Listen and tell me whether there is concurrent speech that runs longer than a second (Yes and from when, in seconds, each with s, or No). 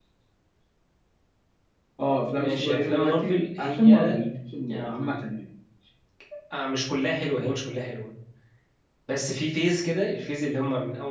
Yes, from 2.4 s